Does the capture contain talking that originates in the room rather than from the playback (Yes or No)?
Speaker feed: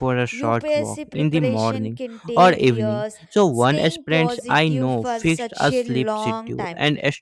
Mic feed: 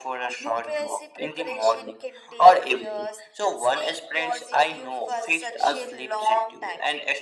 No